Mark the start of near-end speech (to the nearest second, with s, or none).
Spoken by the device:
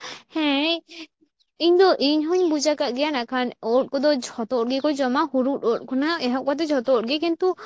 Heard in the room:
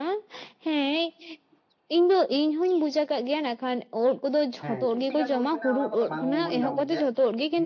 5 s